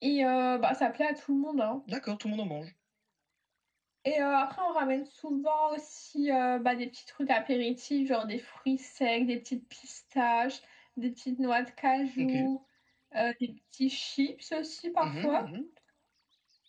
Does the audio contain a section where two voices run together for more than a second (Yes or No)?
No